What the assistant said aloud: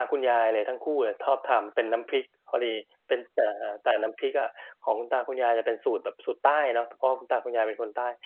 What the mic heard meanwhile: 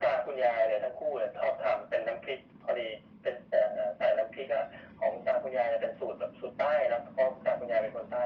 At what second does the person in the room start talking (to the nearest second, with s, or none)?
none